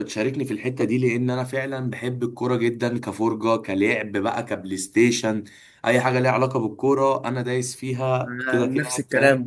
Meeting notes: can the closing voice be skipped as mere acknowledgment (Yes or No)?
No